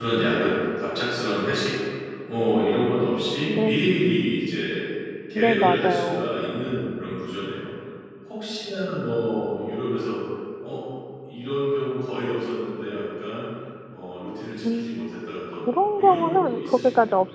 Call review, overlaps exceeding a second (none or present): present